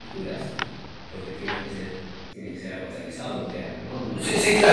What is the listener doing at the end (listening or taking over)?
taking over